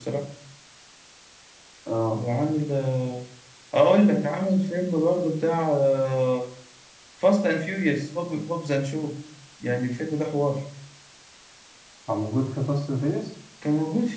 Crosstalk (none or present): none